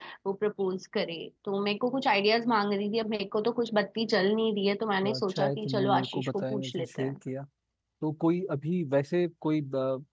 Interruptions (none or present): present